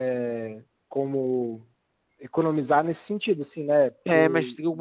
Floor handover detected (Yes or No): Yes